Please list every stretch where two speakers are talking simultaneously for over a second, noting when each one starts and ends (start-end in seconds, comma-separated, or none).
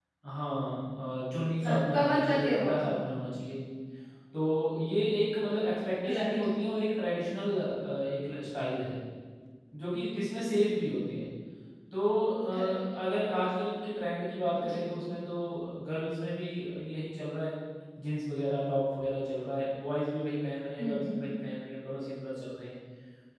1.7-3.1